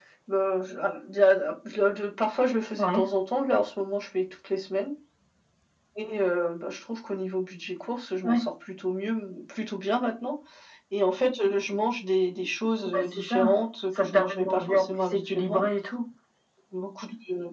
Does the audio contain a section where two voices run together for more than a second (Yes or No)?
Yes